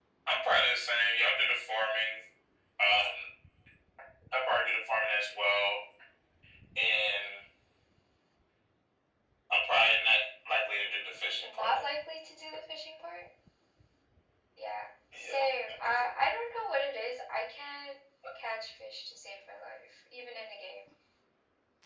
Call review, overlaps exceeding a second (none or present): none